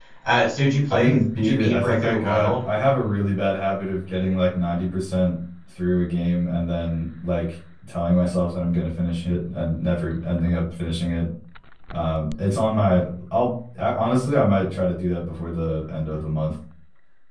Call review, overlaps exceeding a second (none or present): present